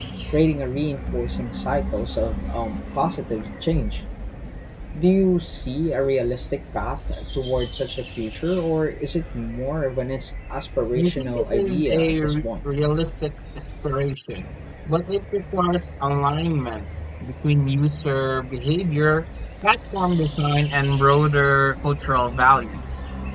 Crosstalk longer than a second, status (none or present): present